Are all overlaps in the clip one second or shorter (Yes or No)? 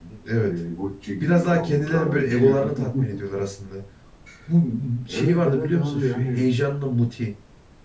No